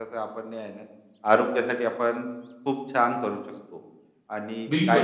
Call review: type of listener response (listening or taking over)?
taking over